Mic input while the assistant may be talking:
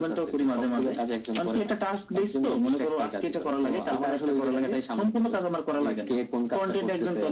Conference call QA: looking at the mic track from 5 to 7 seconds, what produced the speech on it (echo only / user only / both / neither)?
echo only